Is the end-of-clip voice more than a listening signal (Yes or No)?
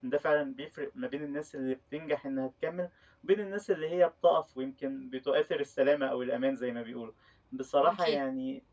No